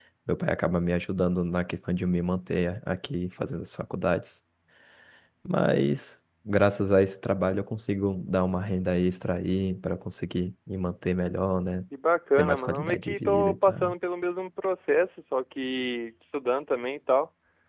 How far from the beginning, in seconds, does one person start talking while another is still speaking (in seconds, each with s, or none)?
12.4 s